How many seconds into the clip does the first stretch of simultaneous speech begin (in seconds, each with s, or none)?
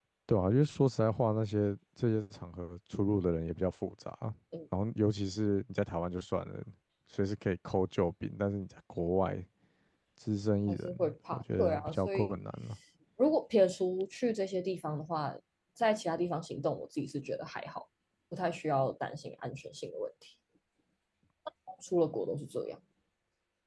10.7 s